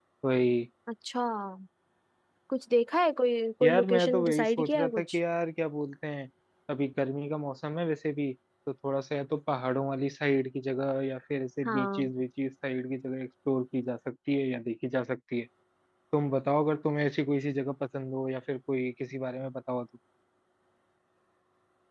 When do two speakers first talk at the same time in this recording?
3.6 s

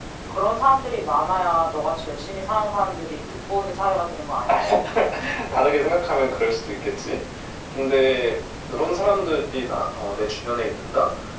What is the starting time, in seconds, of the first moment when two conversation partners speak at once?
none

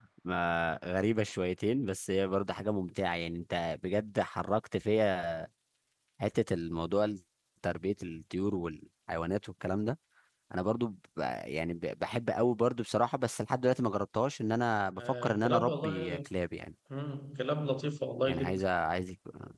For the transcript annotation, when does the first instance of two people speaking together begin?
15.0 s

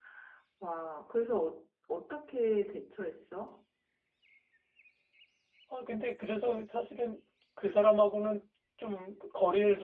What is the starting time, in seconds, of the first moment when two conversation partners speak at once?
none

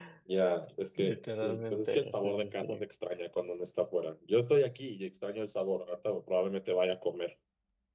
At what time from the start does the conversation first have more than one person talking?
1.0 s

